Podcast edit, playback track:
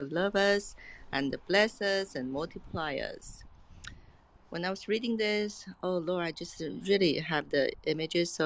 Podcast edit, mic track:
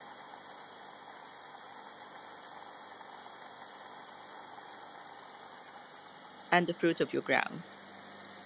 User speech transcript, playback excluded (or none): and the fruit of your ground.